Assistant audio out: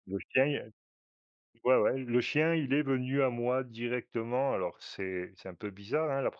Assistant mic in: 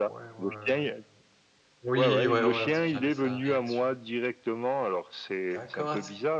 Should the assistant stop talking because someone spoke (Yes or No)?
Yes